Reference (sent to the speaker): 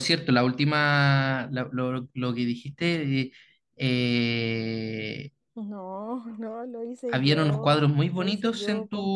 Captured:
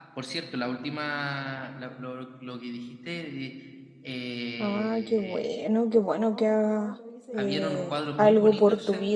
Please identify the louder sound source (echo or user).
user